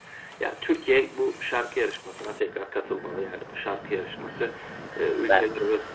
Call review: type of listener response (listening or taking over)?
listening